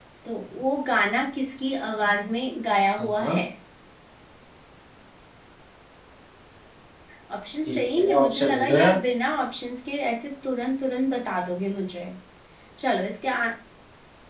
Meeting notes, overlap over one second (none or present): present